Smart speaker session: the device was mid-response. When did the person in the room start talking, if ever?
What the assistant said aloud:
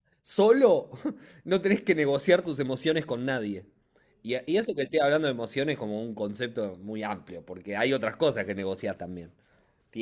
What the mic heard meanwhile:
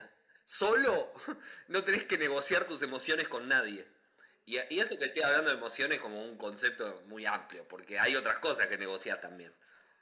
none

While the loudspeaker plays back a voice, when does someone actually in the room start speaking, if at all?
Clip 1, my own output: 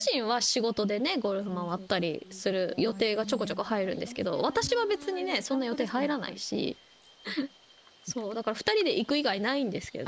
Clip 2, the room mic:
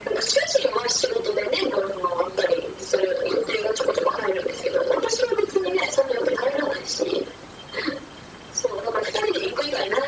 none

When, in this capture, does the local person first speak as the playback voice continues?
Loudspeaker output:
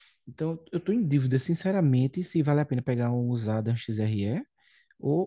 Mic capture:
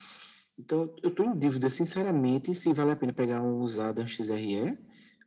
none

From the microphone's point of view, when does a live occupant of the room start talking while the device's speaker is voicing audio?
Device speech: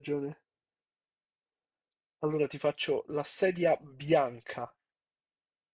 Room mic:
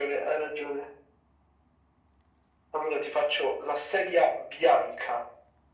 none

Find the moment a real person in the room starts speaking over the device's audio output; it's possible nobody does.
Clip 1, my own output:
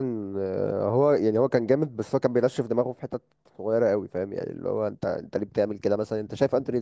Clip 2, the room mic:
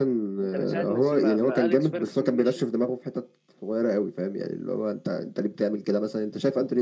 0.4 s

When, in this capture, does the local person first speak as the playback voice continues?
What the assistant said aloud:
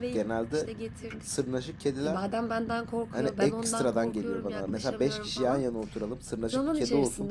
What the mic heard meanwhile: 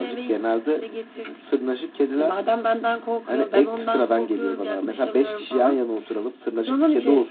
none

